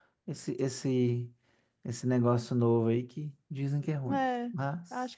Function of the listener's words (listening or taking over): taking over